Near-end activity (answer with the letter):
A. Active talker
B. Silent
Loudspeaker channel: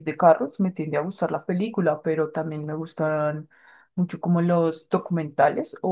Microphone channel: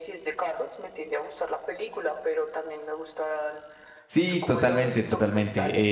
A